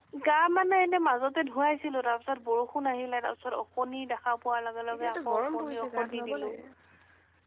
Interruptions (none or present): present